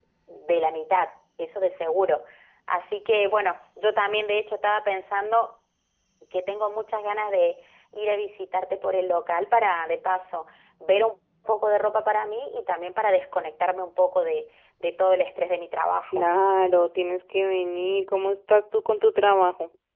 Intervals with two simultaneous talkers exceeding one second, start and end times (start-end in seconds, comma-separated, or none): none